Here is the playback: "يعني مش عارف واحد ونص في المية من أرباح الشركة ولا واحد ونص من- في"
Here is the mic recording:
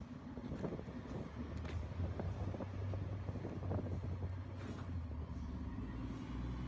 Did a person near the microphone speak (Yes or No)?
No